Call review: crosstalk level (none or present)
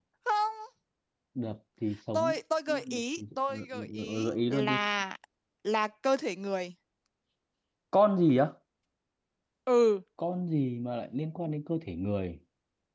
present